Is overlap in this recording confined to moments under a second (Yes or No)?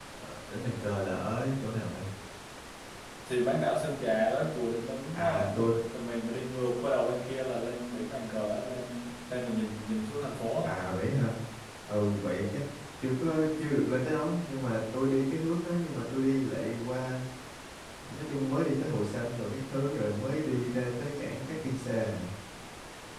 Yes